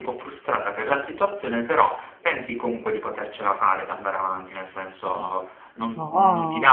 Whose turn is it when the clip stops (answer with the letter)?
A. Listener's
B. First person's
B